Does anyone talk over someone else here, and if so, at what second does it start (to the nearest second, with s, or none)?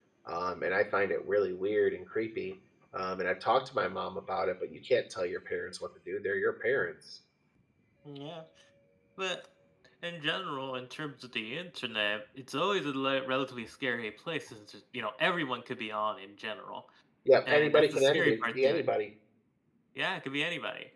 17 s